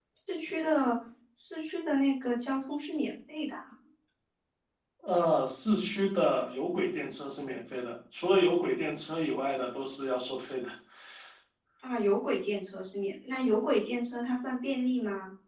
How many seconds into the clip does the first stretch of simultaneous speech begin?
none

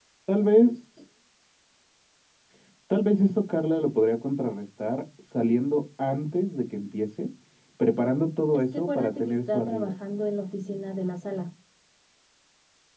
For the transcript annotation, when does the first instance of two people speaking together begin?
8.5 s

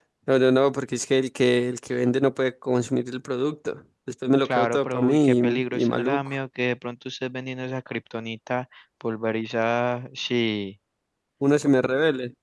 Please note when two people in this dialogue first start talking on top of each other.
4.5 s

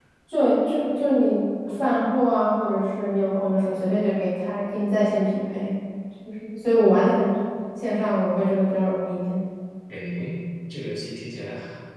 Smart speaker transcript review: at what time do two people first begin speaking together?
none

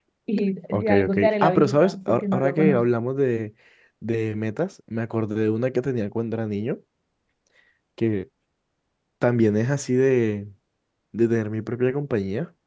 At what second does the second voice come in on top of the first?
0.7 s

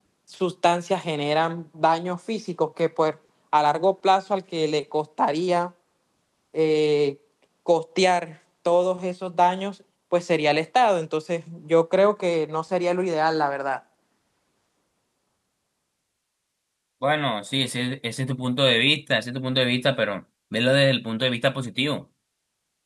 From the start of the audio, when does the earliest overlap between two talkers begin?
none

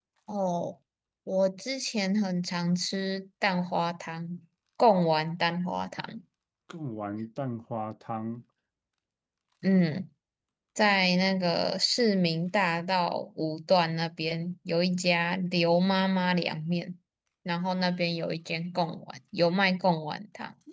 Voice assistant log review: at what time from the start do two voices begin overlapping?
none

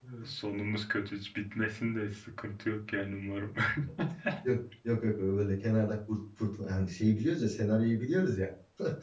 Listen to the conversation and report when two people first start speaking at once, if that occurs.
none

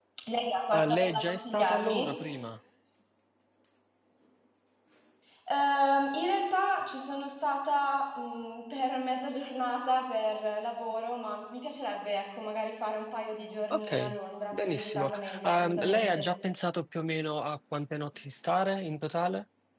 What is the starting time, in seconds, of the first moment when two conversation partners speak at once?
0.7 s

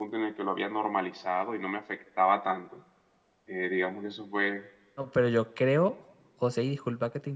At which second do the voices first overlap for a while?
none

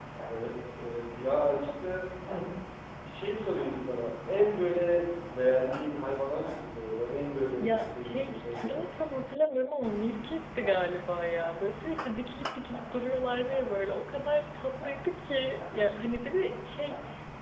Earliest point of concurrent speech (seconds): 7.6 s

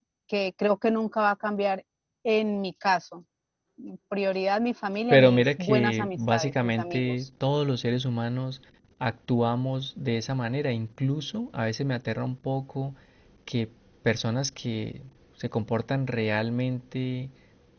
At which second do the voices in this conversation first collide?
5.1 s

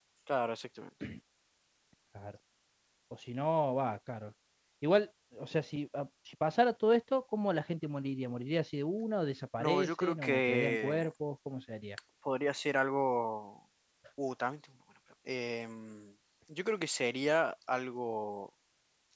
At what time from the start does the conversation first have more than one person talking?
9.6 s

